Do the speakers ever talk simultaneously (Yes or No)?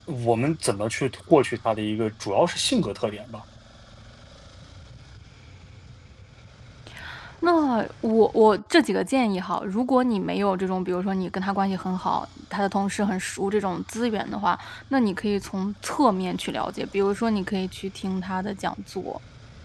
No